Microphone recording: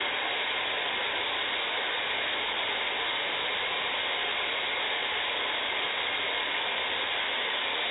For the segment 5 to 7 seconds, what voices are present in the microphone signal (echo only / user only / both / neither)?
neither